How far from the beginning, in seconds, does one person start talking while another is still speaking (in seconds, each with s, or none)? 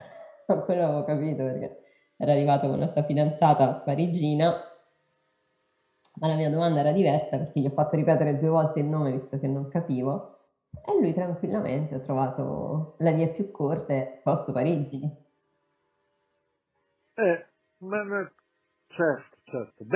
none